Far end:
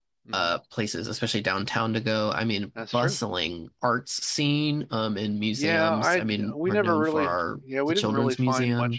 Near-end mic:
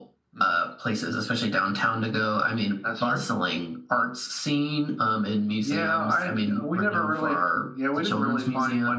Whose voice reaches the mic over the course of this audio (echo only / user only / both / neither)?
echo only